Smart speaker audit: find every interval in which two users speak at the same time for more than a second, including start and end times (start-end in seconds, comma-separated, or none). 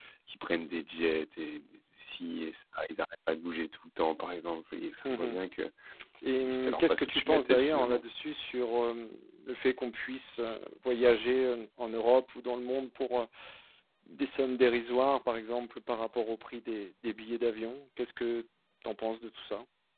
6.4-8.0